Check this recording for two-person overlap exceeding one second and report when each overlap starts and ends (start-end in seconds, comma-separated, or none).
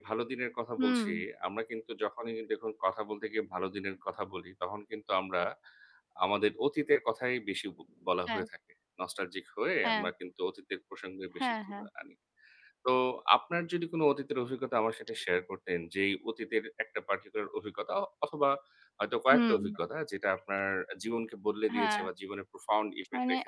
none